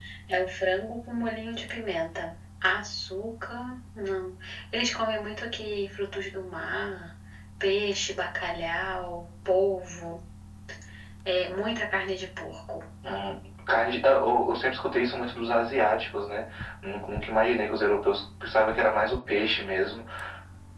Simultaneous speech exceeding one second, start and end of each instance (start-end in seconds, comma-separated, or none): none